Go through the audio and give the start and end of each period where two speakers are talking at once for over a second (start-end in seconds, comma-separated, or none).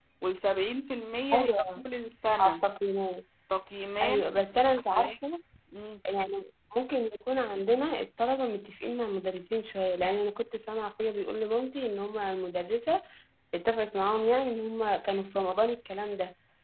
none